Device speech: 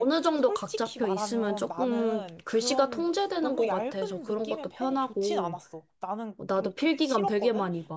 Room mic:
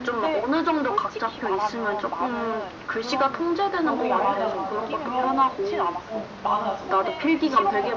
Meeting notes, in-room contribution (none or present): present